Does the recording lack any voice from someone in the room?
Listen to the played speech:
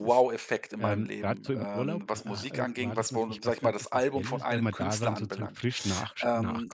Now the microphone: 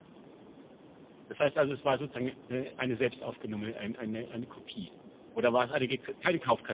No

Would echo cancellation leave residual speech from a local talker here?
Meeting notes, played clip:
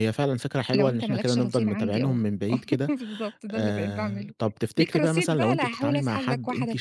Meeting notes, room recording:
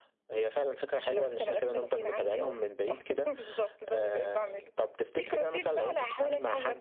No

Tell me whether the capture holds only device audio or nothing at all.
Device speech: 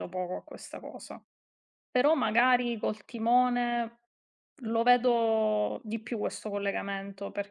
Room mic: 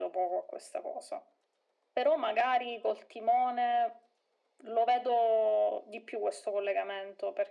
Yes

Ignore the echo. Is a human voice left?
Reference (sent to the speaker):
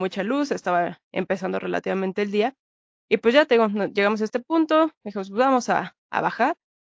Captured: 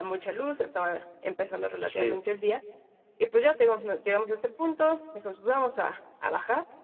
Yes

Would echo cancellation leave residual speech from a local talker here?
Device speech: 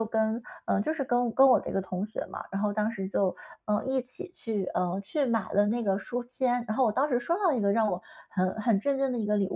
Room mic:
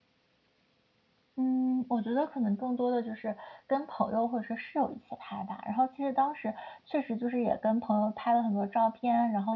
Yes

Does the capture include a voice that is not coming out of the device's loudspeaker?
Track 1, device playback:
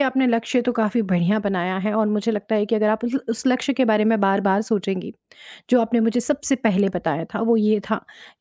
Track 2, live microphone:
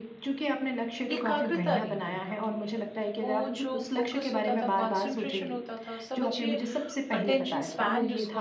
Yes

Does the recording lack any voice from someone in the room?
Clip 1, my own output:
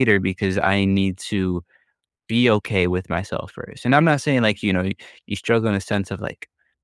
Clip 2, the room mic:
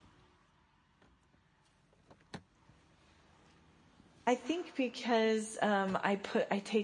No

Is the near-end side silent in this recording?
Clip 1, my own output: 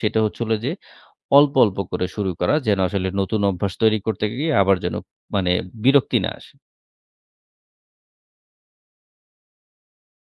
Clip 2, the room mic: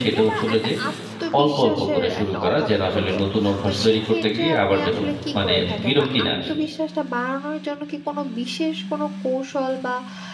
No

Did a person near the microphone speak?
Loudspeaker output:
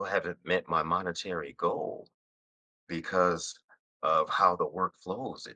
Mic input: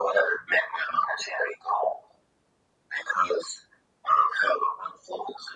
No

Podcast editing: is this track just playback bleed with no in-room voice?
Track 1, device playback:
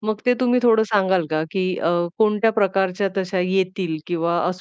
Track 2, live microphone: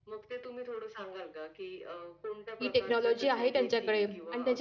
No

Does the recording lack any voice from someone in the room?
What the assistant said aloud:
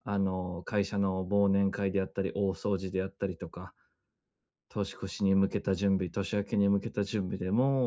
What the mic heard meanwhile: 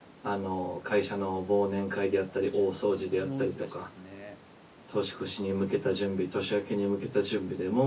No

